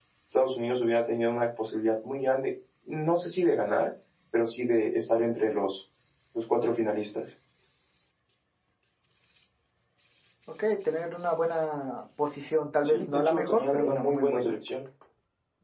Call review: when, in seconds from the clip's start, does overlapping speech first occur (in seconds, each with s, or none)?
12.8 s